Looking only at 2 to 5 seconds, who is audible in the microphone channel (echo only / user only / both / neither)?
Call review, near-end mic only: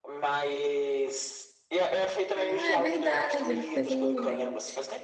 both